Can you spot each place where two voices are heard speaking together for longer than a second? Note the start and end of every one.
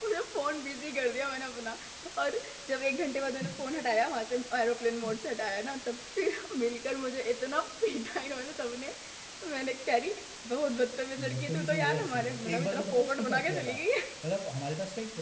11.2-13.7

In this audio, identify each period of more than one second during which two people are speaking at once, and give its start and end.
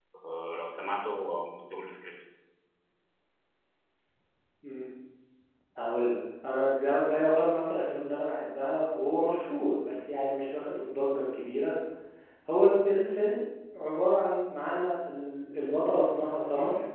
none

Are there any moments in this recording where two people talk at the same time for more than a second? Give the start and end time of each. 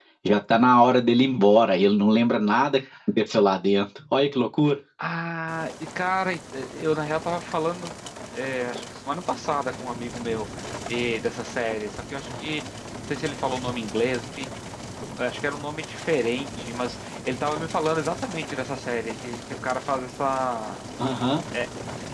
none

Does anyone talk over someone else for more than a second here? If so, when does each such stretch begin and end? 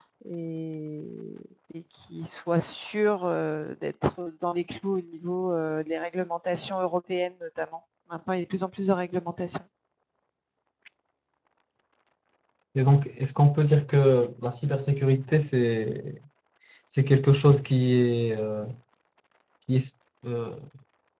none

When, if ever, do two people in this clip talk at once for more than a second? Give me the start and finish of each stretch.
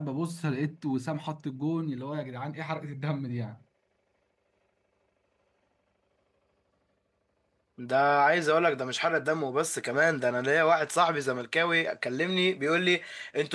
none

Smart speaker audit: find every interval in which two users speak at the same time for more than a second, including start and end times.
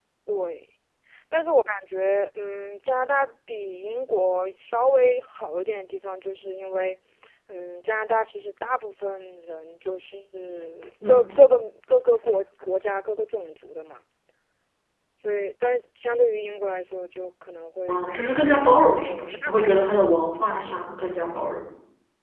17.9-20.9

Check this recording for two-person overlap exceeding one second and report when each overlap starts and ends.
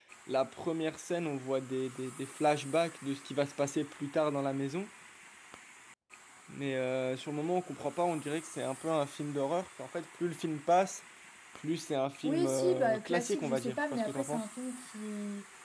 12.2-14.4

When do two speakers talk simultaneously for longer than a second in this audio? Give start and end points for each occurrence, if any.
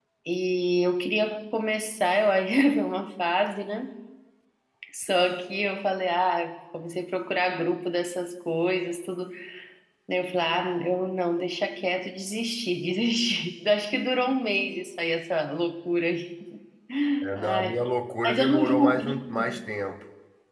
18.3-19.6

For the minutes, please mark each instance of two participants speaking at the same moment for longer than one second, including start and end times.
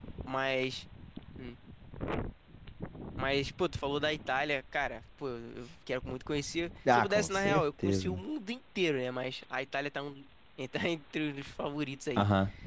6.9-8.2

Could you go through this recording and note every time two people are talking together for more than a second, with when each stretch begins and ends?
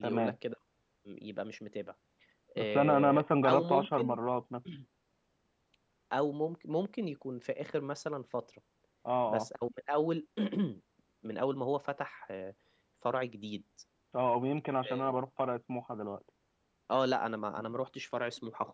2.6-4.2

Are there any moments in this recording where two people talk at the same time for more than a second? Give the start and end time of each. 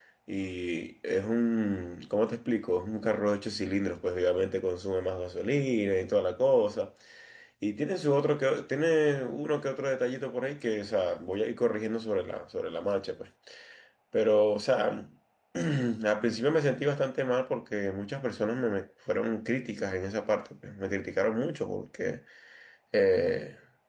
none

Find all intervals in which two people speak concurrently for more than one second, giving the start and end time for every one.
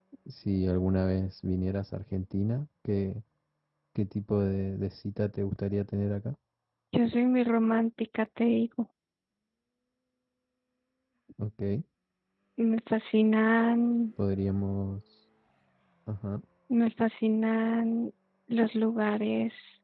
none

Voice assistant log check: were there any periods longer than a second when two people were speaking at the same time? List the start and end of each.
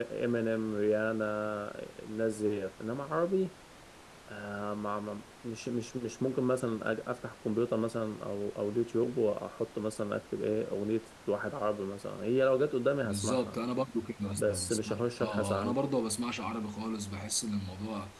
14.4-15.8

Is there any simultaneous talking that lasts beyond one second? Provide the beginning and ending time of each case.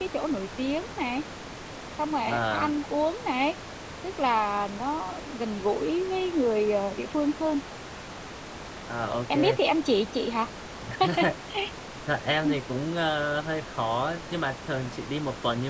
none

